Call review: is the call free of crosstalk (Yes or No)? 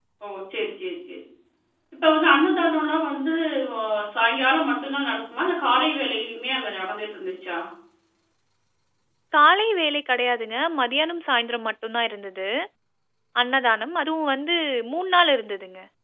Yes